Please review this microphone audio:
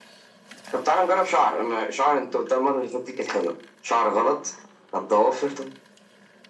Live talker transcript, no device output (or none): none